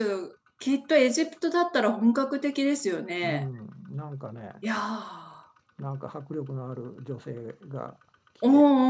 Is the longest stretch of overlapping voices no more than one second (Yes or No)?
Yes